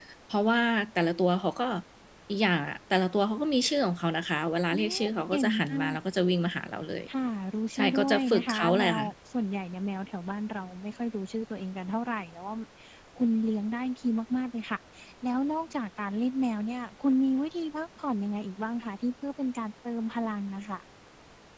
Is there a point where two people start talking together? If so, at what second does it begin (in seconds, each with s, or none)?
4.7 s